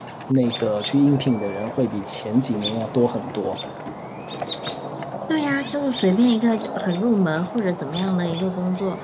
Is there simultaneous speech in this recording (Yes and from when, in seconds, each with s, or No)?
No